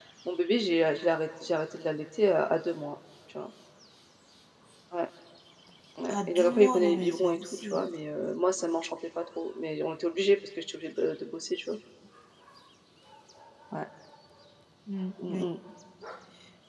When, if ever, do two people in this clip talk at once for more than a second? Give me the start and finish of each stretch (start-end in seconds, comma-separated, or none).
6.1-7.8